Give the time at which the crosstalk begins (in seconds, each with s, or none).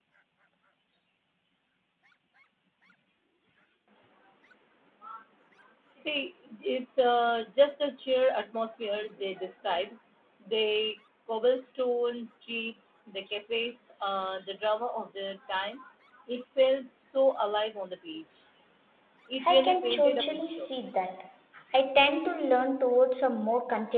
19.5 s